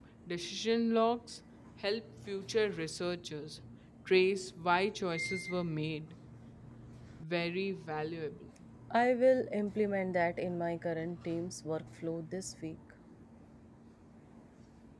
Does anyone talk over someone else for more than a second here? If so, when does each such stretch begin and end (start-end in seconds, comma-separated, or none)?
none